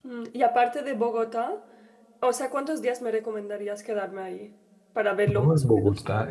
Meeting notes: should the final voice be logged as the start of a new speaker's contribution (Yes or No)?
Yes